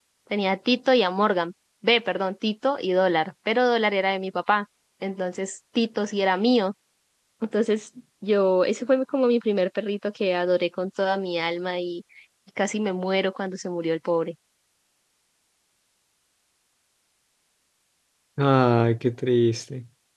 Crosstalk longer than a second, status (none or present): none